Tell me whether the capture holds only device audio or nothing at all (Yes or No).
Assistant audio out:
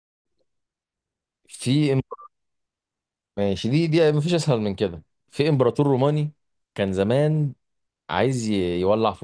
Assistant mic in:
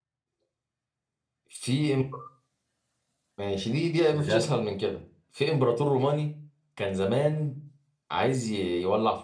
No